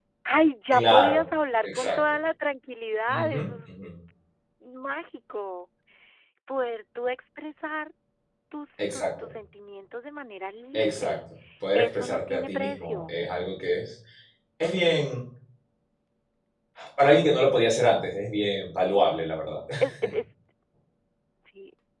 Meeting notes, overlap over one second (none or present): present